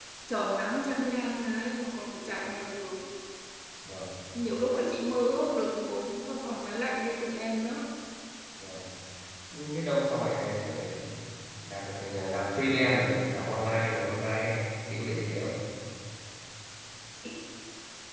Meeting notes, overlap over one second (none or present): none